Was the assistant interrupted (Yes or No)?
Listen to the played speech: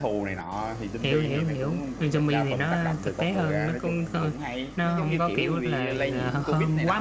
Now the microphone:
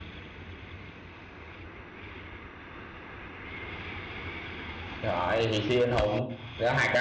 Yes